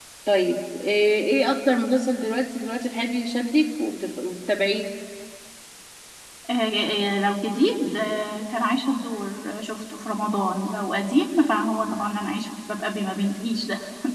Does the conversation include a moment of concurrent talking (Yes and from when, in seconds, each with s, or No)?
No